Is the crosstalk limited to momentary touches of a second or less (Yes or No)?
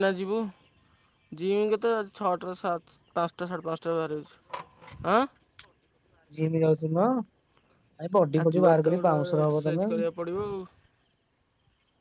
No